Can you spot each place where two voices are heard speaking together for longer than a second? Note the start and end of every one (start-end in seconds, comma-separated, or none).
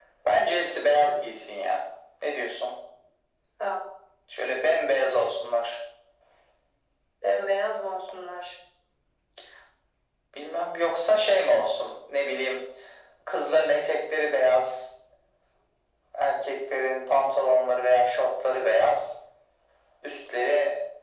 none